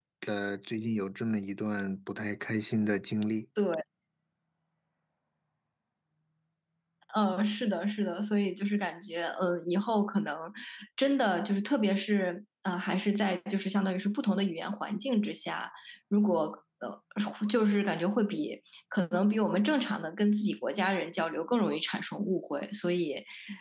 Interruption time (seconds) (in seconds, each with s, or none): none